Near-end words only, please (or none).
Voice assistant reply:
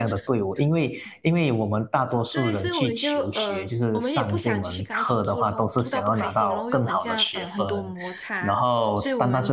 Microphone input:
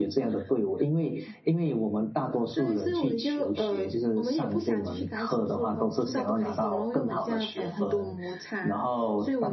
none